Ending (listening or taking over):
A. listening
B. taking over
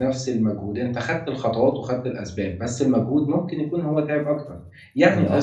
A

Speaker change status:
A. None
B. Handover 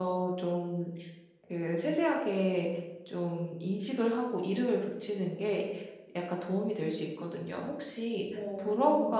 A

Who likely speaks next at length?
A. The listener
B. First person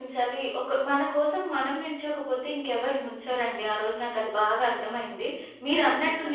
B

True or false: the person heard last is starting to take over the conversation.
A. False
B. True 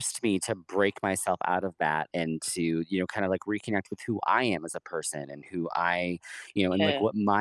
A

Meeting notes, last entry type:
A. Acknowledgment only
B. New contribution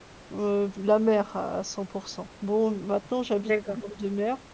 A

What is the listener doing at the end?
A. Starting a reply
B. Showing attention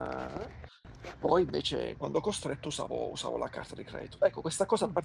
B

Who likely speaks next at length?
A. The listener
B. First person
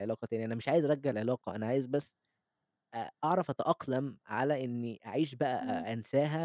B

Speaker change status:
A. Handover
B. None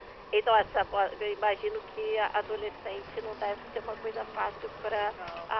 B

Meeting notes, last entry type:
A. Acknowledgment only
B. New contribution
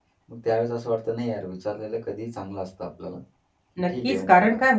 B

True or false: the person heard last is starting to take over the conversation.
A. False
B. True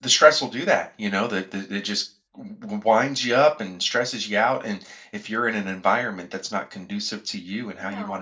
B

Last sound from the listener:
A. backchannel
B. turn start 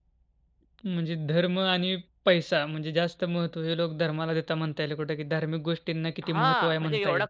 B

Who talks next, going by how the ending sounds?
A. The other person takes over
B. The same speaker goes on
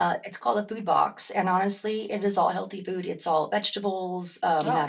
B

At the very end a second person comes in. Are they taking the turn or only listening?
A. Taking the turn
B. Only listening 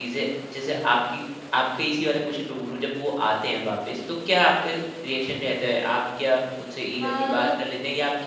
B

